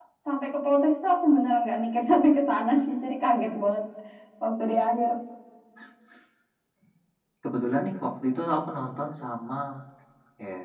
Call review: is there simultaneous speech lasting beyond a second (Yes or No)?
No